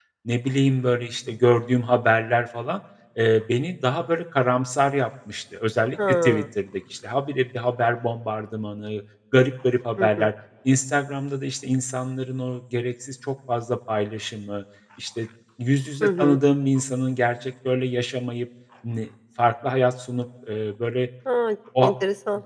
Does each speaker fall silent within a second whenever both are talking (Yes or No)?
Yes